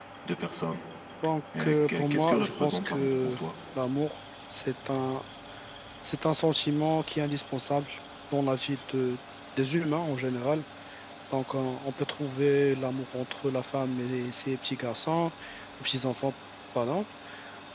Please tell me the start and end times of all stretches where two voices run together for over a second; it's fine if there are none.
1.6-3.4

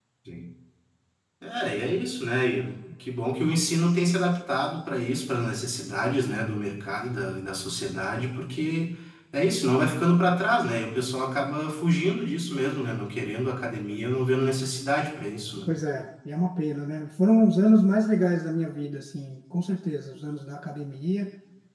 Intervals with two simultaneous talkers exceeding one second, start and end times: none

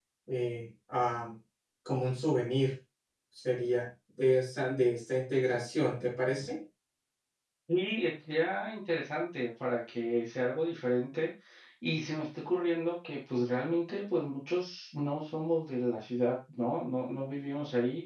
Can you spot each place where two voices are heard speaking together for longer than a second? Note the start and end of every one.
none

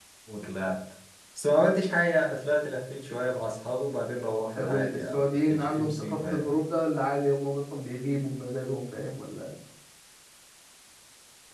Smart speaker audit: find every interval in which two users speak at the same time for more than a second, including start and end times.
4.6-6.6

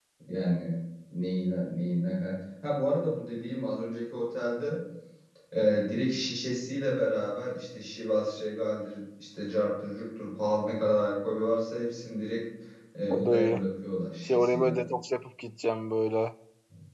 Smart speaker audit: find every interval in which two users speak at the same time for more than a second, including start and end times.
none

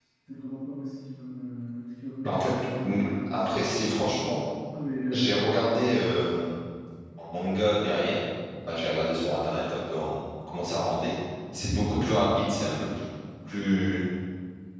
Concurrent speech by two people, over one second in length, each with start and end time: 2.2-3.7

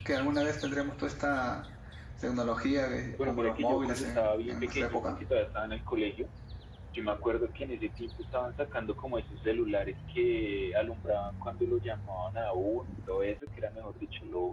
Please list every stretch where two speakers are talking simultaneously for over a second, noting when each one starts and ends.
3.2-5.0

